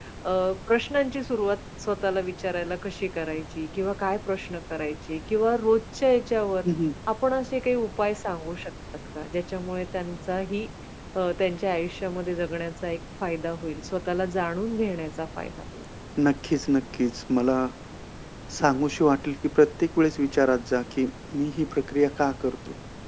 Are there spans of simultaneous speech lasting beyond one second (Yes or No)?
No